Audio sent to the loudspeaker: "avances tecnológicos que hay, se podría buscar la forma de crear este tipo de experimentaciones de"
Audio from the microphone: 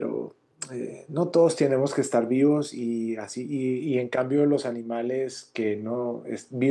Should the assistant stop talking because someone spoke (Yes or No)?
Yes